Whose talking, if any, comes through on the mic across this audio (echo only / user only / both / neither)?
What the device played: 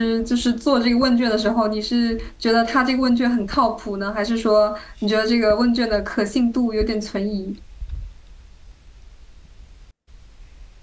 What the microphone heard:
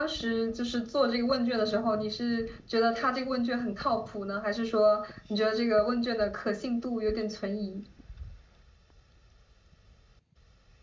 echo only